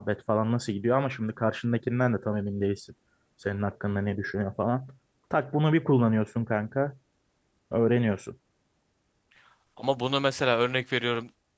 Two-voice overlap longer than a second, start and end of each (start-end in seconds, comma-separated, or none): none